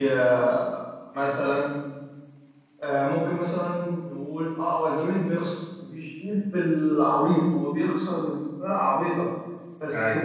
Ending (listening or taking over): listening